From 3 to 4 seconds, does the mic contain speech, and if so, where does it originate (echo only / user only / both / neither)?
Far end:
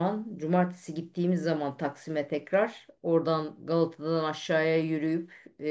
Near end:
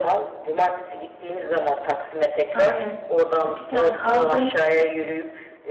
both